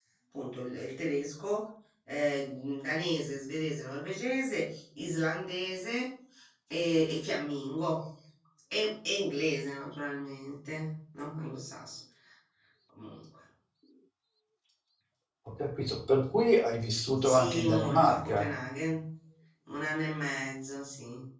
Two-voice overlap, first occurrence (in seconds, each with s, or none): 17.2 s